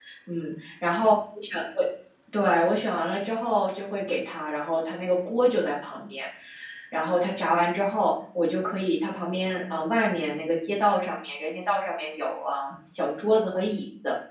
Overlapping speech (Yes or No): No